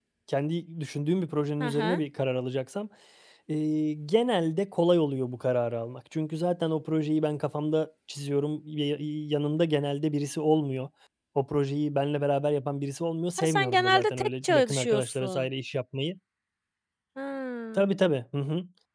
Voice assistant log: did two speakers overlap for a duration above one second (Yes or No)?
Yes